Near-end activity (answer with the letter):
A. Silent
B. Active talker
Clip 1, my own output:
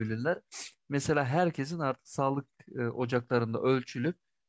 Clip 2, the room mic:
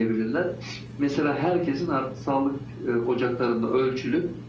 A